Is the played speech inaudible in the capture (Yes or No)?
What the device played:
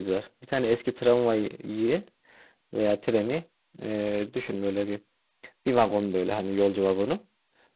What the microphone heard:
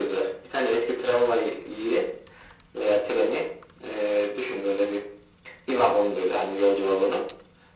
No